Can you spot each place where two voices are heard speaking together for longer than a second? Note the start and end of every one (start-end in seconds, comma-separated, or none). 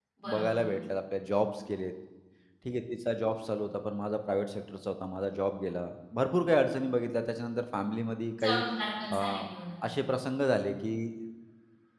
none